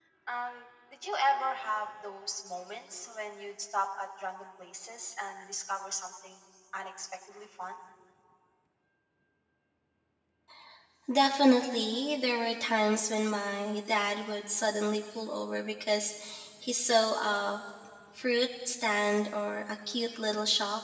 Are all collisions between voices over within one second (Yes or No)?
Yes